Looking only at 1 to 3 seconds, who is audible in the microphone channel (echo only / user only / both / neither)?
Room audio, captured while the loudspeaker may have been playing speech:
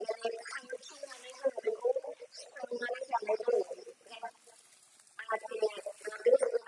echo only